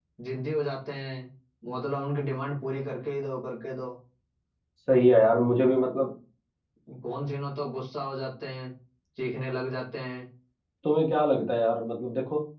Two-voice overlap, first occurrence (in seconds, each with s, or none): none